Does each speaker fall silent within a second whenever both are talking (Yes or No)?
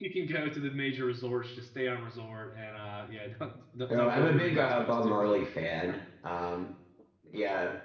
No